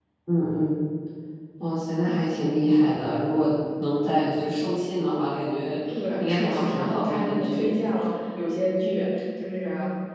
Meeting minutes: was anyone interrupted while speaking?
Yes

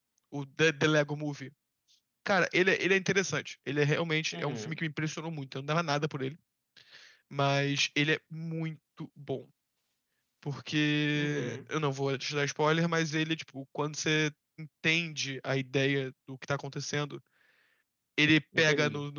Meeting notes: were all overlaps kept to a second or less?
Yes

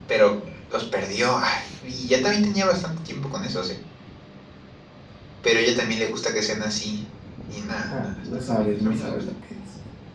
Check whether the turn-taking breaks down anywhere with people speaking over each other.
Yes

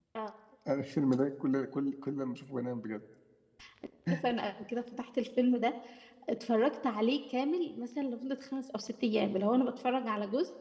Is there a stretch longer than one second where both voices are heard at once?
No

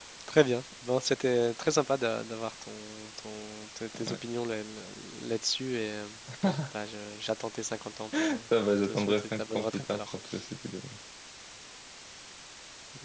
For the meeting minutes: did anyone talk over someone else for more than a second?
Yes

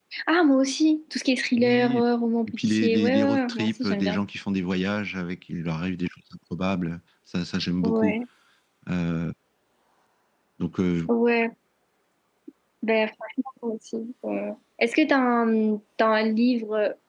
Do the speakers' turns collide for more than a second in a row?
Yes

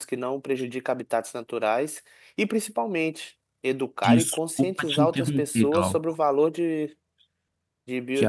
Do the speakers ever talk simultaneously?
Yes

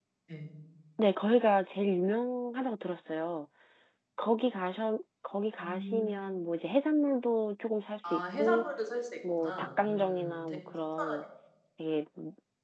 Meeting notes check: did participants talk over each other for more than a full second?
Yes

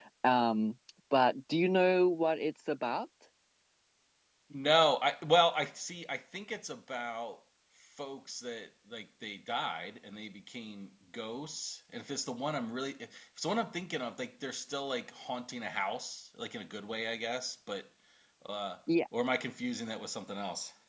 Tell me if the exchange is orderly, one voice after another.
Yes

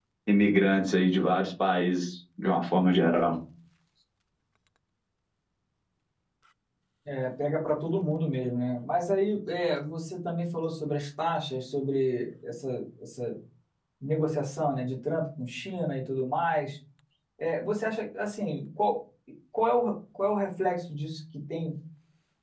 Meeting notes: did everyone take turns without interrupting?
Yes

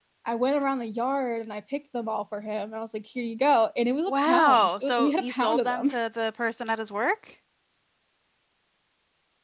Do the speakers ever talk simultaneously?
Yes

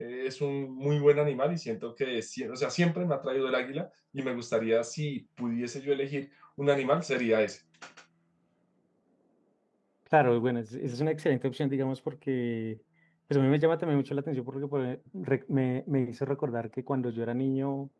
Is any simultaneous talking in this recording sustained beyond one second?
No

